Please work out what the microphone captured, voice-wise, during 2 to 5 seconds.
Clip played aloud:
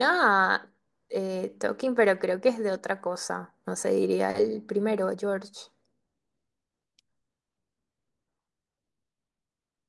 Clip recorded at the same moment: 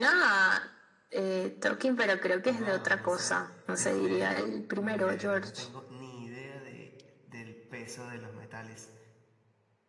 both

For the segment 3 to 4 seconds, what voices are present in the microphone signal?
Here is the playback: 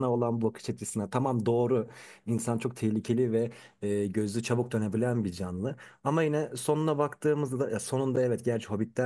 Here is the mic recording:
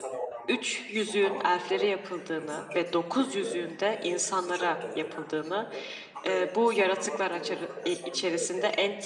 both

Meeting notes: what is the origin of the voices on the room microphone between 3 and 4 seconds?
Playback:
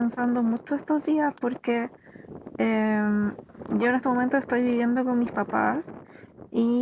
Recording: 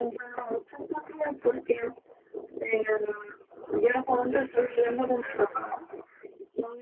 echo only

